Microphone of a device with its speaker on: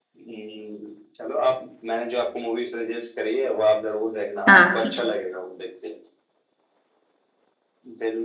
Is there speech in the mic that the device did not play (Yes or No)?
Yes